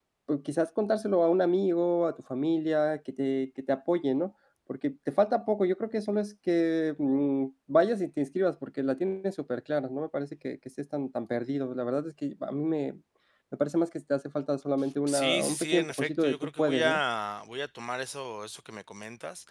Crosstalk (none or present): present